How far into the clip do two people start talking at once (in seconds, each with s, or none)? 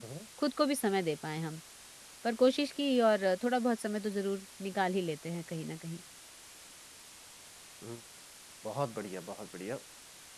none